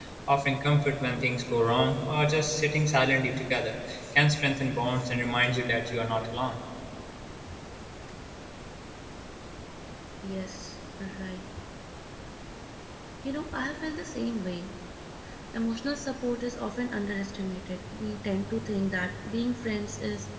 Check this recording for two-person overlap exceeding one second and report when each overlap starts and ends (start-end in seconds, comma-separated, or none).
none